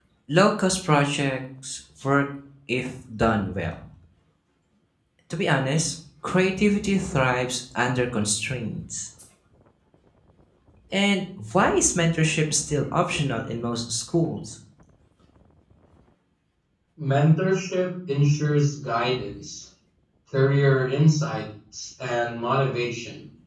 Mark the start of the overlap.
none

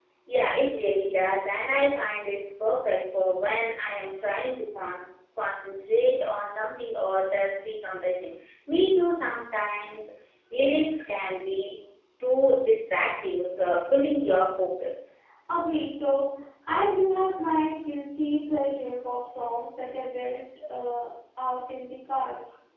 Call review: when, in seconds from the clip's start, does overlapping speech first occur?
none

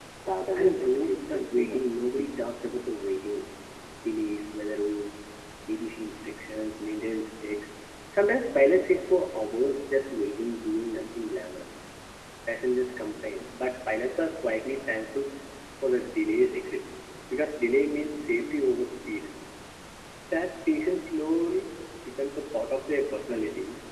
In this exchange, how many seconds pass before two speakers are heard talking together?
0.5 s

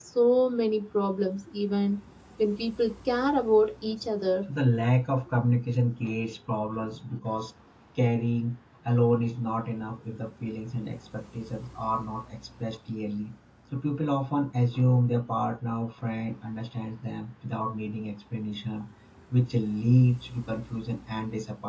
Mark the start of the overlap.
none

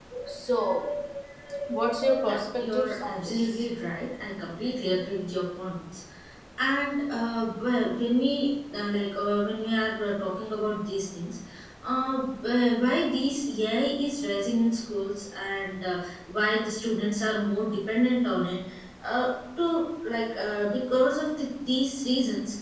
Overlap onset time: 2.2 s

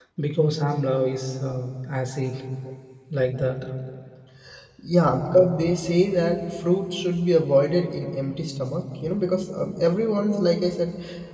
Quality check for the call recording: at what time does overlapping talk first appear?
none

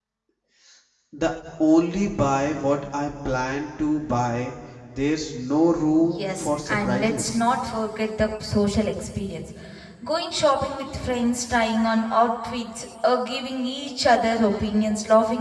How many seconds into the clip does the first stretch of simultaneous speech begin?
6.1 s

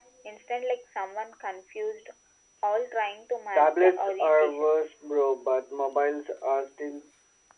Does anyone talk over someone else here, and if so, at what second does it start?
3.5 s

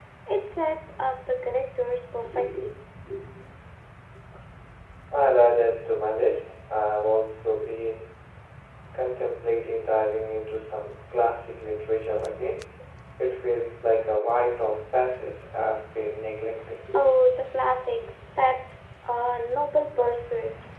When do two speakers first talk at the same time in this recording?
none

